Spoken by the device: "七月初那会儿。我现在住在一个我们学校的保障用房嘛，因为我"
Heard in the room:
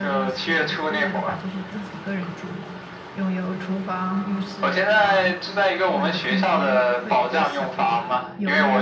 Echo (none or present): present